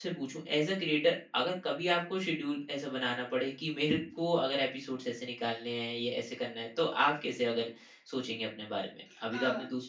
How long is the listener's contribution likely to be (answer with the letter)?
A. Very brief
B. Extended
B